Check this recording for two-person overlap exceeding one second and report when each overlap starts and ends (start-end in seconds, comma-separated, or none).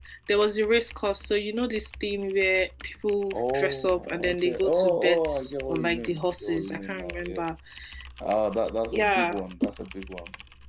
3.3-5.3, 5.7-7.4